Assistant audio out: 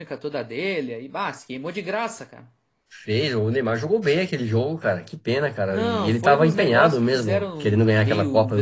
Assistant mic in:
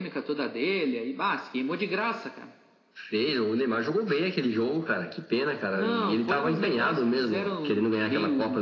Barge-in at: none

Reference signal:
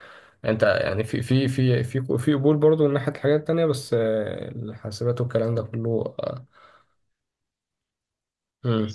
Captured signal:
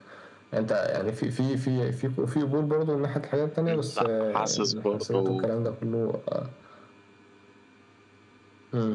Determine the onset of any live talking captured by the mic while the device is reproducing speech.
3.7 s

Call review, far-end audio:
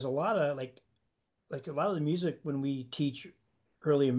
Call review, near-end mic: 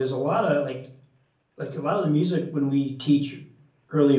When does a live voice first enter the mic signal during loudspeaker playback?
none

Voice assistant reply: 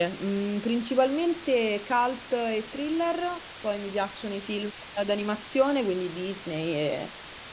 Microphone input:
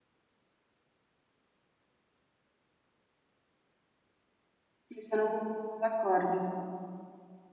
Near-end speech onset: 4.8 s

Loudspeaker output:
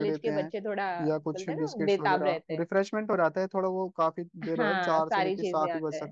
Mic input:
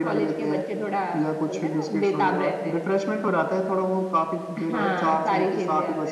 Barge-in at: none

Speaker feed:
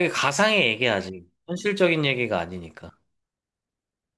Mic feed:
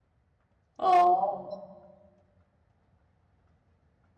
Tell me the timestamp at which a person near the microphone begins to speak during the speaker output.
0.8 s

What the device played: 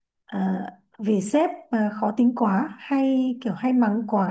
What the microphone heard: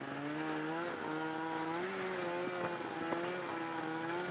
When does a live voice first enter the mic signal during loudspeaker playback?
none

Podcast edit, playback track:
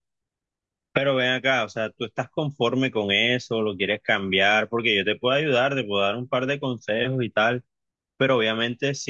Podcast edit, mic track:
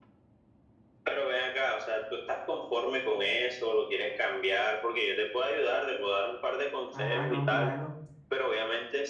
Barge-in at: 6.9 s

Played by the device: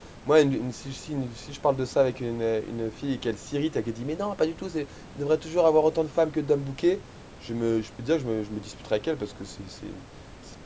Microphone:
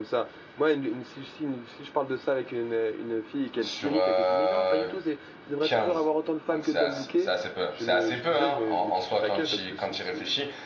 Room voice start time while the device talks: 3.6 s

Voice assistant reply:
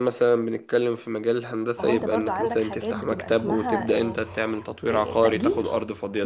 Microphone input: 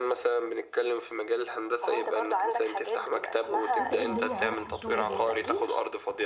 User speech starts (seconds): 3.8 s

